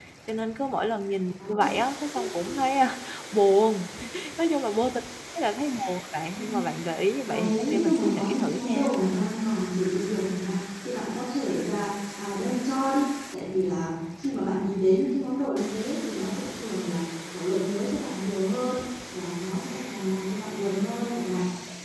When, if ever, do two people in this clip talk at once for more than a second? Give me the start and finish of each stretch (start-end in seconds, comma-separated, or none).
7.3-8.9